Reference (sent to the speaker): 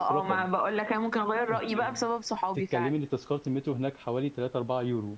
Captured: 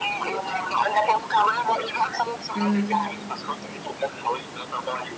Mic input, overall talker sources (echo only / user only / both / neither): both